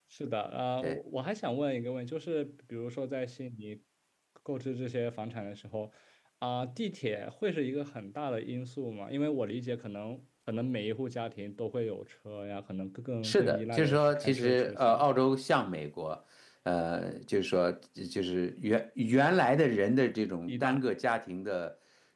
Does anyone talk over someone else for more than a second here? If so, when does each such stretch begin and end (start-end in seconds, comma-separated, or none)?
13.2-15.1